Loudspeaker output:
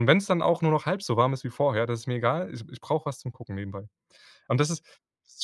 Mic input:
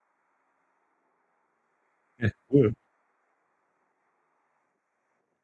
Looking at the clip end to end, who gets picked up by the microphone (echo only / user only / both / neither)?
user only